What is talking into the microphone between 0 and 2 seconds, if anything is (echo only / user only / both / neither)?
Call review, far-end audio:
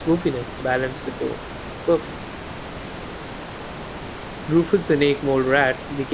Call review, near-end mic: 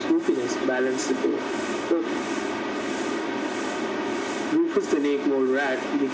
echo only